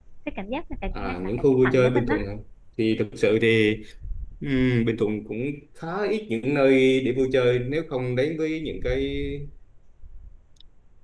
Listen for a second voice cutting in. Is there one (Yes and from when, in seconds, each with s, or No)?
Yes, from 1.0 s